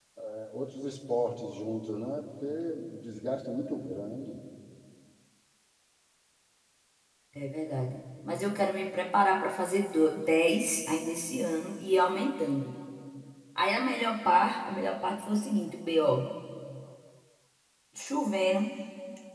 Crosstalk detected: No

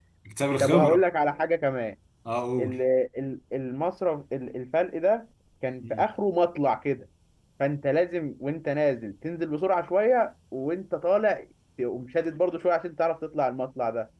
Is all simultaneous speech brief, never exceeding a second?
Yes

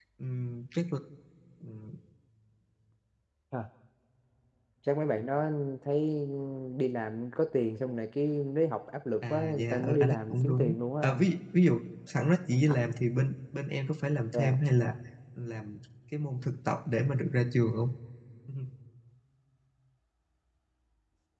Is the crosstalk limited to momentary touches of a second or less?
No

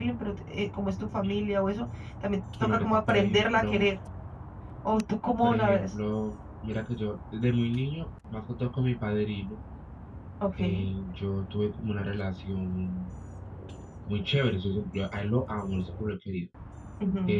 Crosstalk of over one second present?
Yes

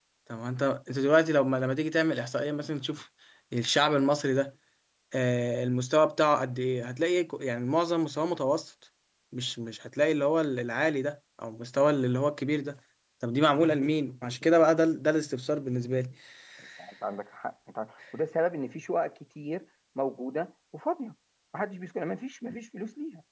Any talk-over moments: No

